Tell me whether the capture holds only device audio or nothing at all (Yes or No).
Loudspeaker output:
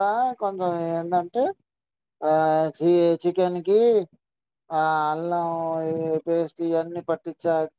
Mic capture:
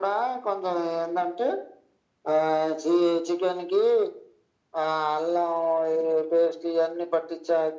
Yes